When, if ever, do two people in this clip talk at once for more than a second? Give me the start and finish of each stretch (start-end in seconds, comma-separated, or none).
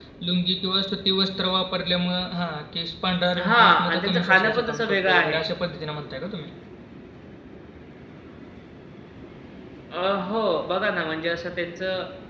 3.4-5.4